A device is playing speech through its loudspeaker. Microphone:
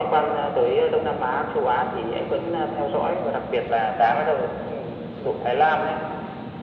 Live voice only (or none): none